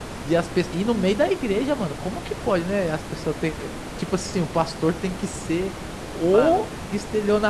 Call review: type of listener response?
listening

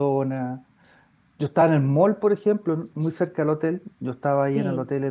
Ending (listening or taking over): listening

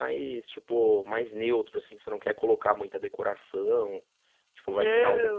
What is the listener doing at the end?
taking over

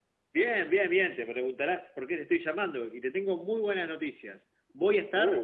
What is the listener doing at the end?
listening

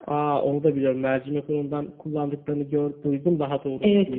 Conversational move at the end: taking over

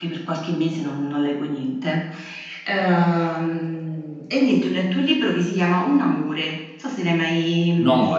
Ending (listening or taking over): taking over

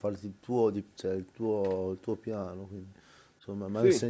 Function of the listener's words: listening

